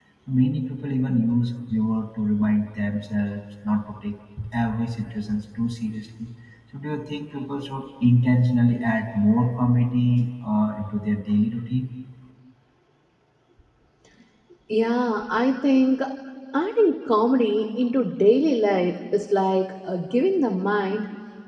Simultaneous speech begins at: none

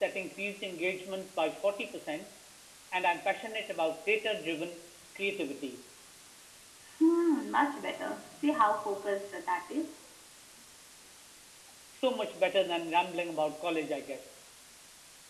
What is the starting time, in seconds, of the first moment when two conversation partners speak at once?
none

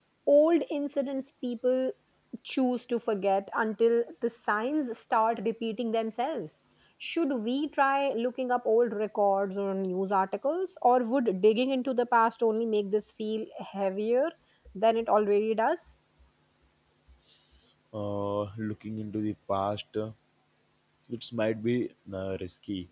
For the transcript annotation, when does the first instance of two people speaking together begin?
none

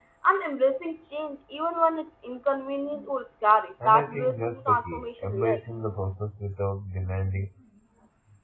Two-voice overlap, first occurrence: 3.9 s

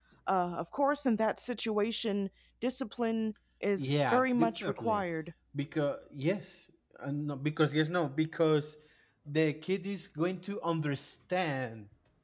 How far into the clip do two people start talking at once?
3.8 s

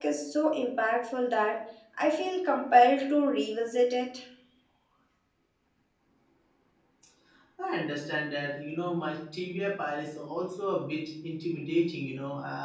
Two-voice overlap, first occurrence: none

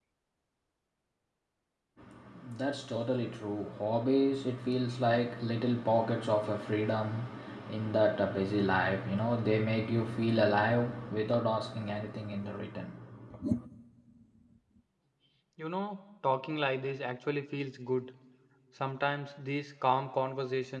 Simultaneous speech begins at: none

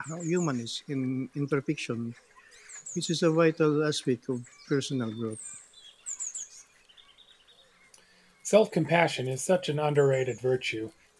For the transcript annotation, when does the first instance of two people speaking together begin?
none

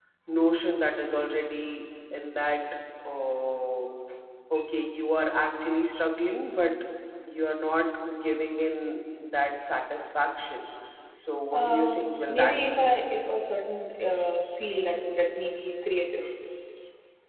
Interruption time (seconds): 11.5 s

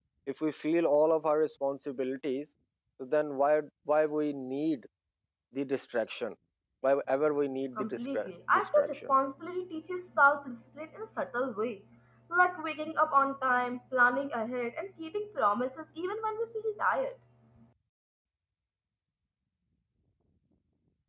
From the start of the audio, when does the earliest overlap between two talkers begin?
7.8 s

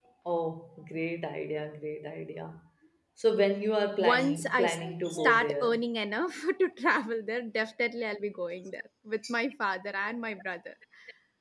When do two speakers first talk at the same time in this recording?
4.0 s

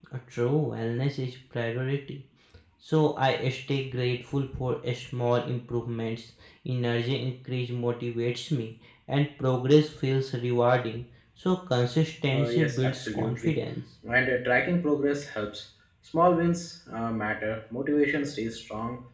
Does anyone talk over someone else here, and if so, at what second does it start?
12.3 s

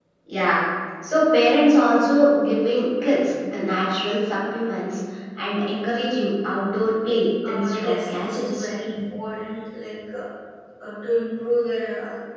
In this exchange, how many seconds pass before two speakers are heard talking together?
7.4 s

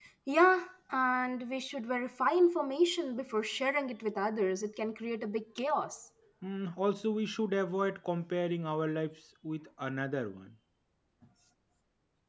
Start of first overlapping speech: none

